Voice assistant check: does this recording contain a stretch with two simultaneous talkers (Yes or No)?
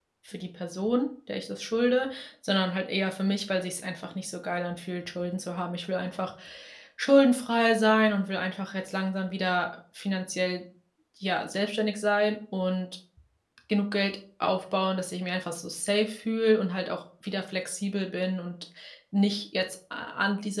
No